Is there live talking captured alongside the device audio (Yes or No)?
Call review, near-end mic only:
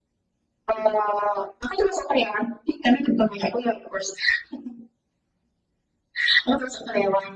No